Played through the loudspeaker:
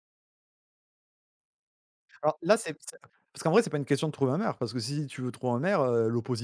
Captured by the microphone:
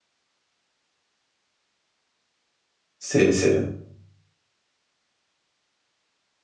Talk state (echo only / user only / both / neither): user only